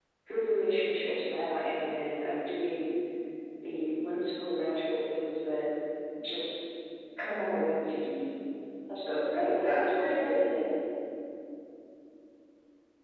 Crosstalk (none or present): present